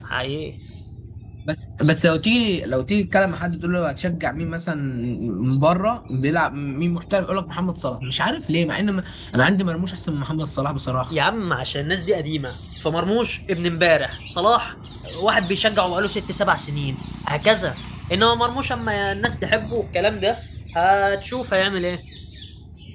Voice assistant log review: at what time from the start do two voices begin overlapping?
none

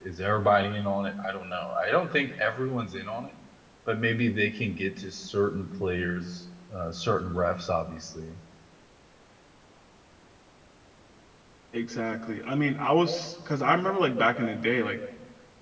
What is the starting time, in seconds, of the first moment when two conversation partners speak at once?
none

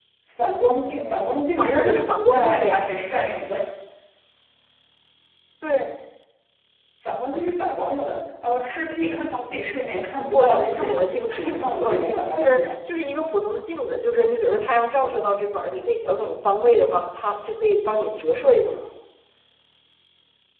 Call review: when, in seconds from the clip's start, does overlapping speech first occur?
1.6 s

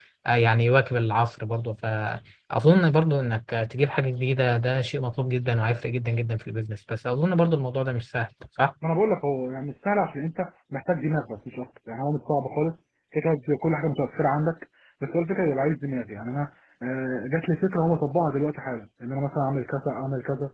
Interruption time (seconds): none

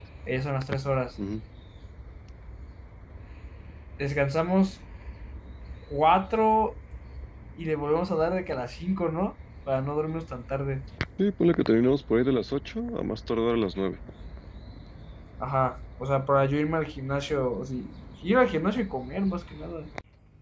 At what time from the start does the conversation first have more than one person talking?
none

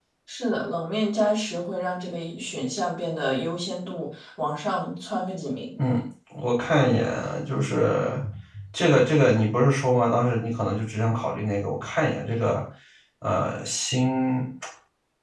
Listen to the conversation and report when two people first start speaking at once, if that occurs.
none

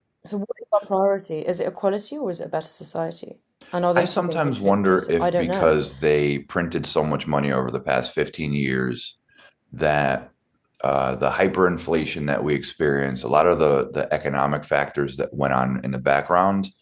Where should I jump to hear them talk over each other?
4.0 s

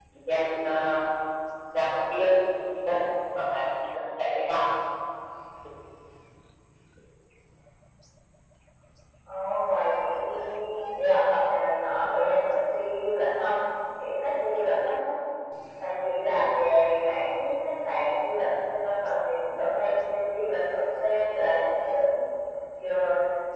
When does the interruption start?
none

